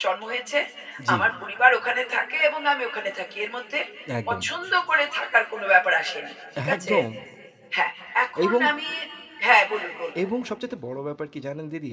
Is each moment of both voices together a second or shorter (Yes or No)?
Yes